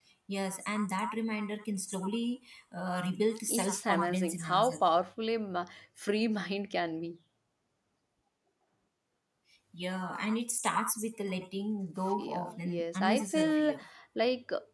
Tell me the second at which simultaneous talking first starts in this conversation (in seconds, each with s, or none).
3.5 s